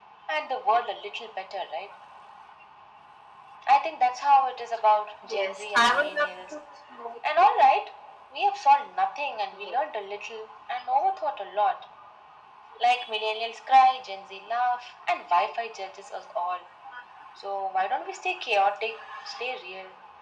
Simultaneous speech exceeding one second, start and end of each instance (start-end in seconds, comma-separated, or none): 5.2-6.6